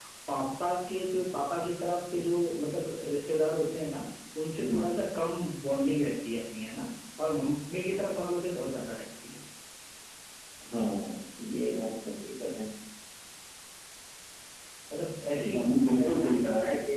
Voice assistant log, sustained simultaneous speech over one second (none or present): present